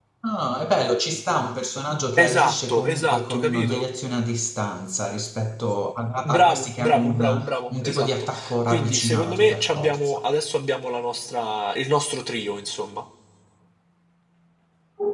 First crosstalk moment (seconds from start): 2.2 s

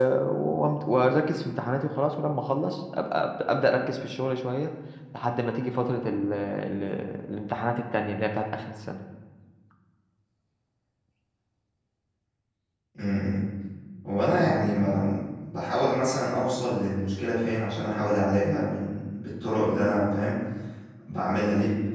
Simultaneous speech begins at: none

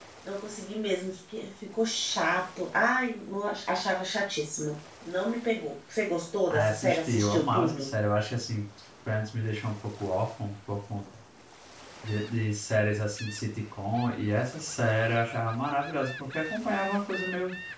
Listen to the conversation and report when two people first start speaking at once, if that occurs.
6.5 s

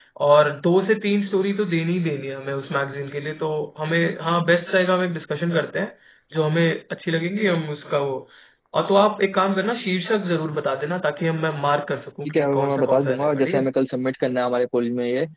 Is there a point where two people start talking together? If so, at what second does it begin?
12.2 s

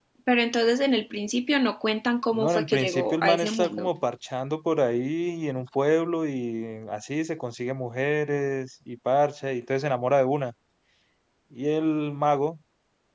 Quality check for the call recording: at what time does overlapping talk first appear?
2.3 s

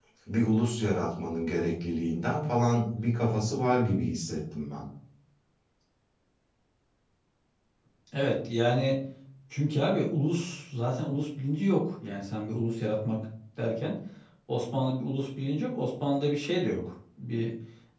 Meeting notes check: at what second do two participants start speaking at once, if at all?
none

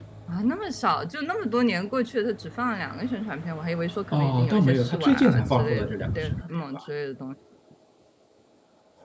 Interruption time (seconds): 4.1 s

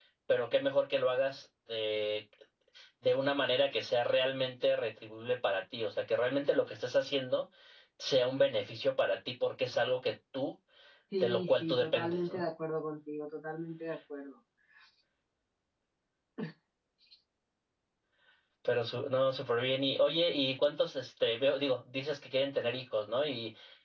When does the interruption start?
11.2 s

